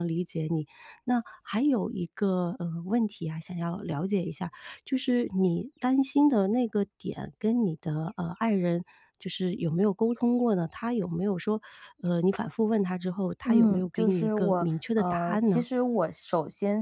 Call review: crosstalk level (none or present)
present